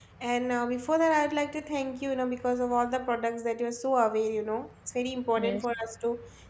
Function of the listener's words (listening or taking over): listening